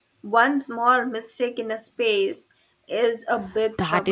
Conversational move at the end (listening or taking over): taking over